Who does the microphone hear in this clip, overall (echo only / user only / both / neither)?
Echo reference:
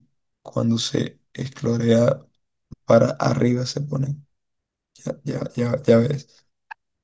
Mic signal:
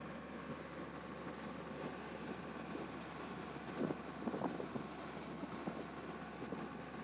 neither